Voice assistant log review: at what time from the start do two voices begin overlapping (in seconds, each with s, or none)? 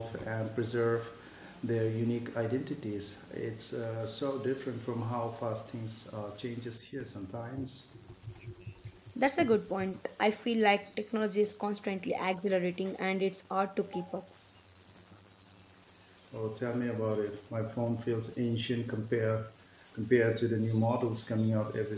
none